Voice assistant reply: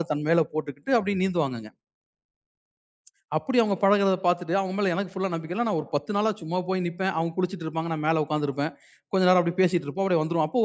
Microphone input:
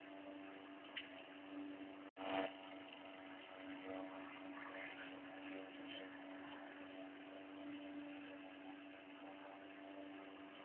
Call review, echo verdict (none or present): none